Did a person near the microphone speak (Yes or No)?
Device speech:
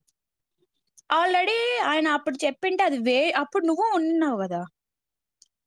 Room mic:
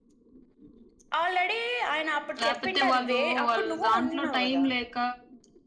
Yes